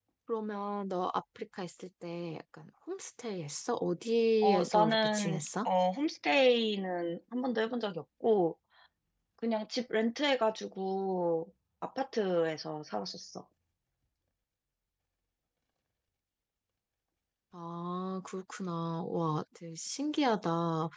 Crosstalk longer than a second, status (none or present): present